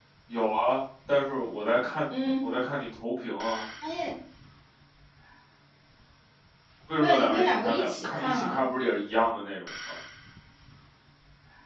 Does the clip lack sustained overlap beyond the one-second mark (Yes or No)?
No